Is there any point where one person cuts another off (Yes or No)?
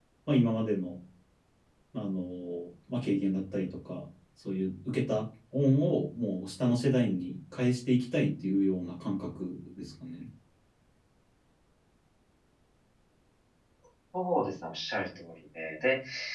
No